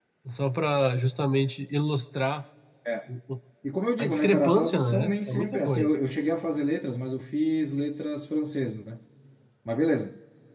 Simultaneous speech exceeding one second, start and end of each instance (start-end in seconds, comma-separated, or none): 4.0-5.9